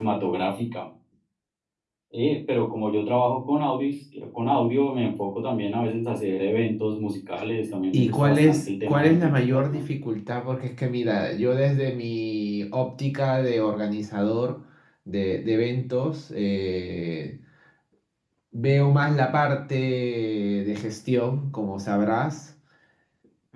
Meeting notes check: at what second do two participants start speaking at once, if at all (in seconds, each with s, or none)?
7.9 s